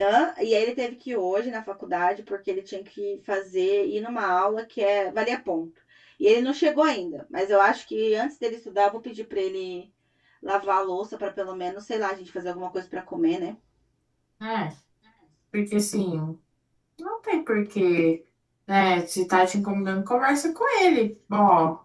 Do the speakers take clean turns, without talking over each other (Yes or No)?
Yes